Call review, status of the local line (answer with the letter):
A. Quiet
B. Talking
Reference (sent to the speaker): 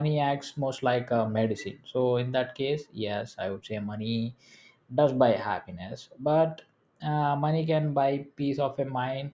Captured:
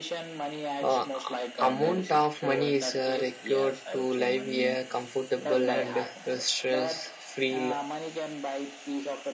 B